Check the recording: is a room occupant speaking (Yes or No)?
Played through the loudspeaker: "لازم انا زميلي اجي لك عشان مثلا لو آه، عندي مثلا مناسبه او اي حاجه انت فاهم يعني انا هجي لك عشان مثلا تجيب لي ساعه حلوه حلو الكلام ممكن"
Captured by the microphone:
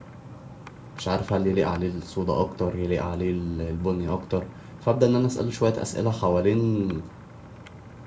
Yes